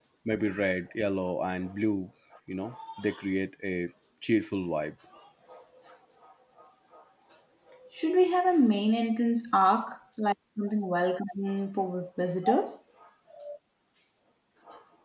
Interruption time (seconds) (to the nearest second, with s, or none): none